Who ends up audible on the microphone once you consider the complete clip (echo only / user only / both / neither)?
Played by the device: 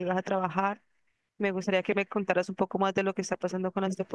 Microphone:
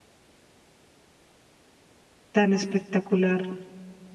user only